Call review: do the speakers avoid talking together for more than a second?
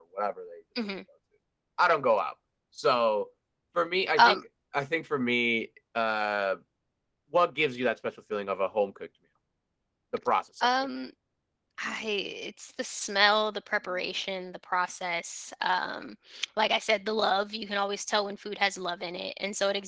Yes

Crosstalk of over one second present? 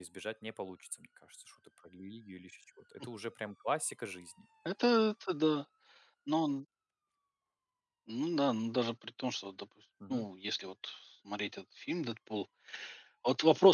No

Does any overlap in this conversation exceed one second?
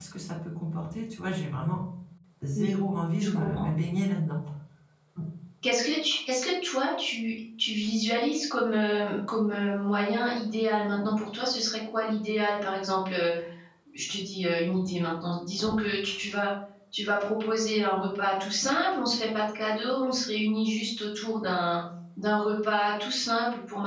No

